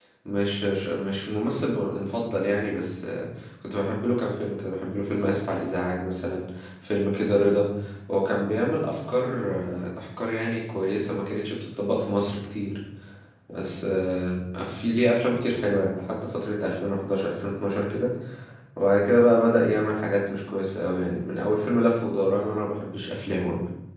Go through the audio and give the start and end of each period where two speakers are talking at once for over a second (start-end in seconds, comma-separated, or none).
none